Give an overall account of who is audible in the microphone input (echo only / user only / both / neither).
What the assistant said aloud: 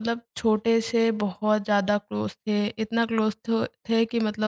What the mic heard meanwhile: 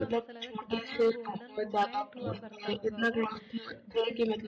both